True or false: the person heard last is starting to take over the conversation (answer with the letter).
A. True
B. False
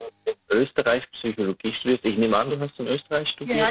A